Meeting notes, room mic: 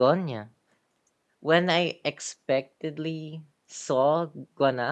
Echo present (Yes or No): No